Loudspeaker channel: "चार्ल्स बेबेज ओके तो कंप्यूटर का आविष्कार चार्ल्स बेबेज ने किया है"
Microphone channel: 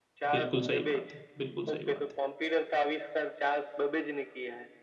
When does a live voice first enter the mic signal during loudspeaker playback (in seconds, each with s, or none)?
0.3 s